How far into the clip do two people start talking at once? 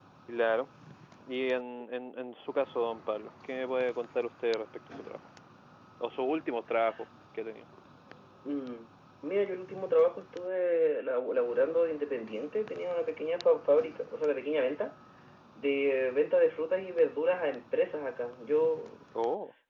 none

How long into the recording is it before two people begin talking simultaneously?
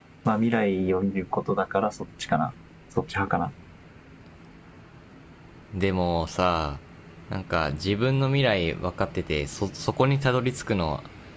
none

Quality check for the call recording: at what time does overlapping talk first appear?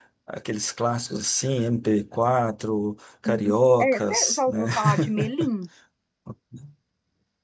3.2 s

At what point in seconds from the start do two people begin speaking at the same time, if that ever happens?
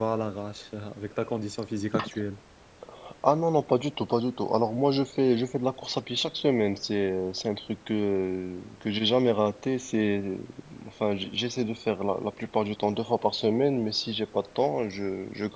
none

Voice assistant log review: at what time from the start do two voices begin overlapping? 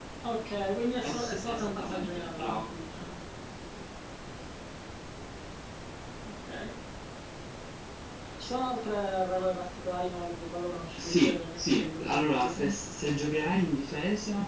1.1 s

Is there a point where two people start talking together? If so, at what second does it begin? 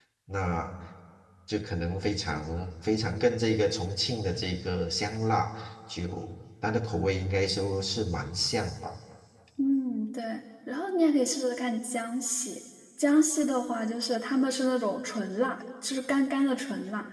none

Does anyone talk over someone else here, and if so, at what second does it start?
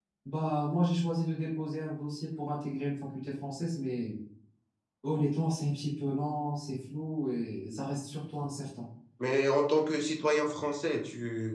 none

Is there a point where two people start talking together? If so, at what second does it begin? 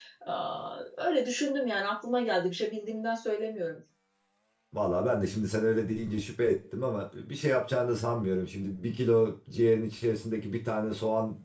none

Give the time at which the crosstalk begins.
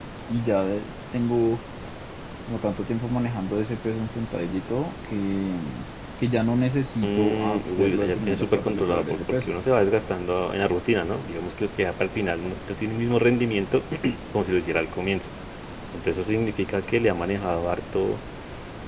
7.0 s

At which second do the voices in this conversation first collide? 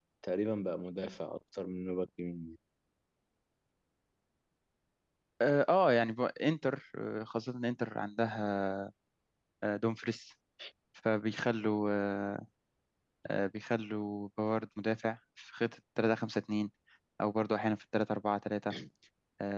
none

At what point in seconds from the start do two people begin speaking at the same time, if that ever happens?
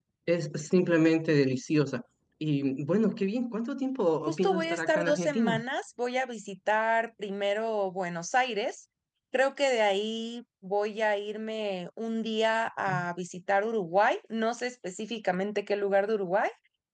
4.3 s

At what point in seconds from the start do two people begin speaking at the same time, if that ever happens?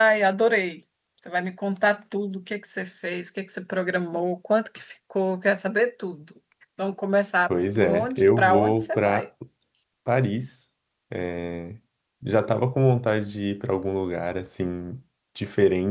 7.8 s

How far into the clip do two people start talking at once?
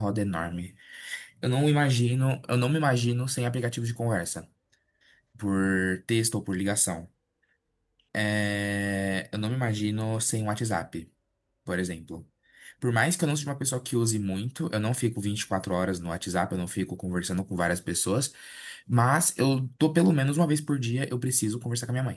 none

